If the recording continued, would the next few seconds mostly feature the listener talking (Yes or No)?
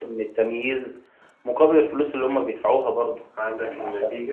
Yes